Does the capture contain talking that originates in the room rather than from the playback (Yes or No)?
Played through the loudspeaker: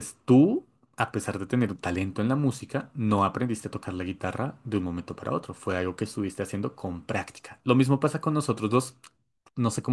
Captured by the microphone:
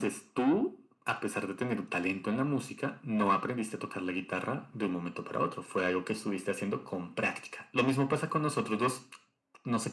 No